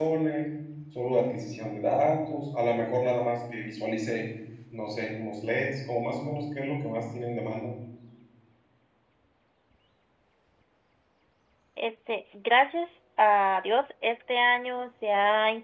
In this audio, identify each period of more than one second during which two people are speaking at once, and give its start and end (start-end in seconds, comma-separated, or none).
none